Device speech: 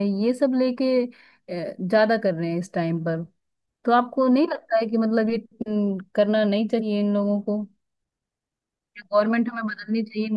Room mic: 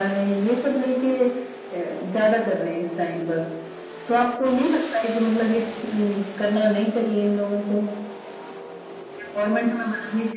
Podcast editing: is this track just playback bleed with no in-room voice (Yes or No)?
Yes